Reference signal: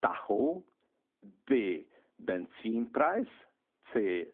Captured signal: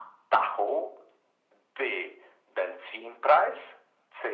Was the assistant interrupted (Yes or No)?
No